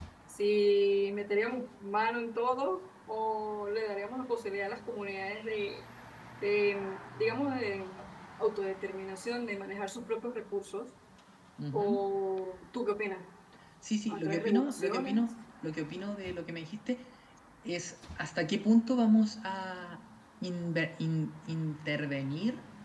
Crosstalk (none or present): present